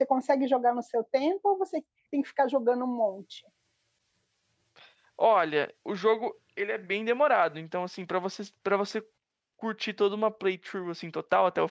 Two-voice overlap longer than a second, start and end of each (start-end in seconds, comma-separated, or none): none